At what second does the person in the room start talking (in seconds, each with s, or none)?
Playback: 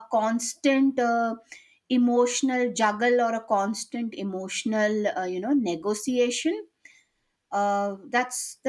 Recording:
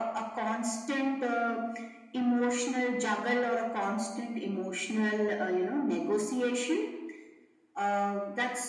none